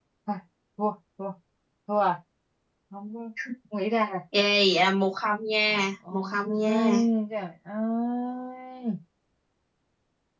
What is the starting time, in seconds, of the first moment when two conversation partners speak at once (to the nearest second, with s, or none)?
6 s